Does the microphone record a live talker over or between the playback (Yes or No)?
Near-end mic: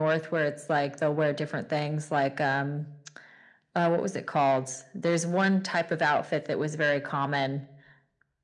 No